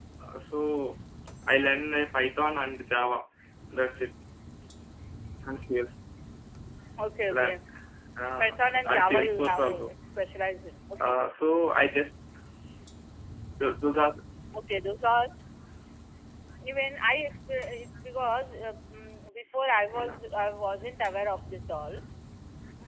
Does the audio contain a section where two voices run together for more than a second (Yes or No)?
Yes